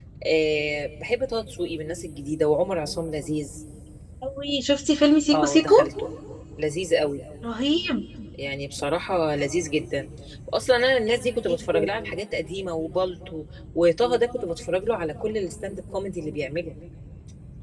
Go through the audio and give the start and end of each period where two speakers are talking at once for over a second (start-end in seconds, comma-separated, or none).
none